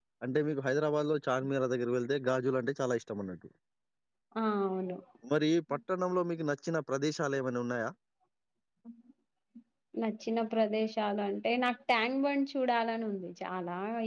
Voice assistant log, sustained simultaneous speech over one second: none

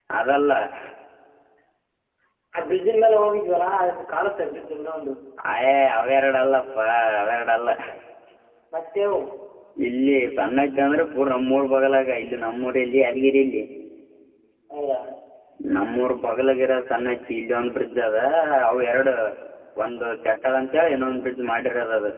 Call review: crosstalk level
none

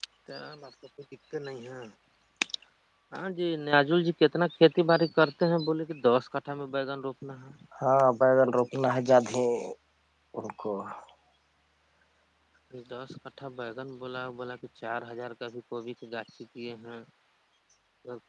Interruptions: none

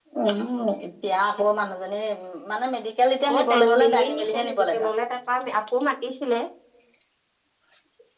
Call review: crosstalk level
present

